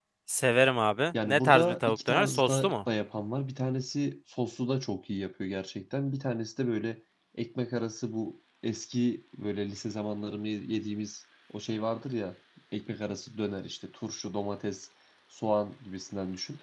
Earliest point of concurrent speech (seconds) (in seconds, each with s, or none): 1.2 s